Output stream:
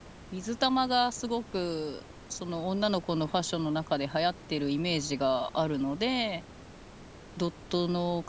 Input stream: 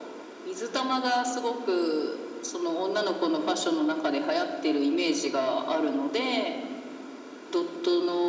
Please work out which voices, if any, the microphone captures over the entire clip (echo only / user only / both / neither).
echo only